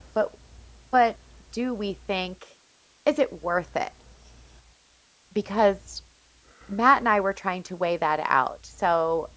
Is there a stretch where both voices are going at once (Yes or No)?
No